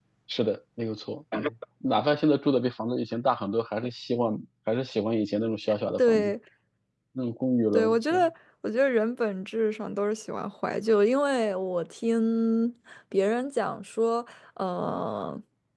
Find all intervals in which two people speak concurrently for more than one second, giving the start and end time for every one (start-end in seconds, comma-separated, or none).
none